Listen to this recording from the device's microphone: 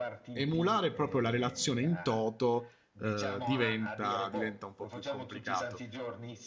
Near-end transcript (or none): emulare proprio la relazione in toto eh, diventa, diventa un po' più complicato.